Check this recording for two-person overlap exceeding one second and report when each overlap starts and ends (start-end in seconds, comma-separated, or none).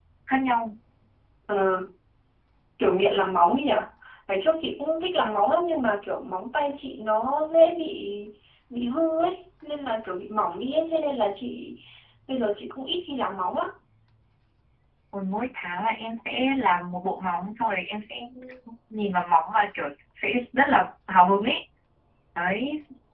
none